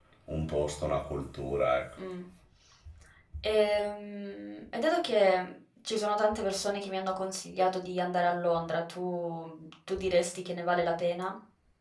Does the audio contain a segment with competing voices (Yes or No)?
No